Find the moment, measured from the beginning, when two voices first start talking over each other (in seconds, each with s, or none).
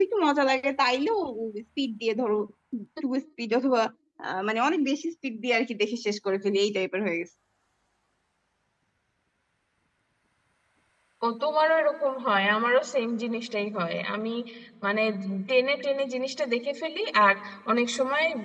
none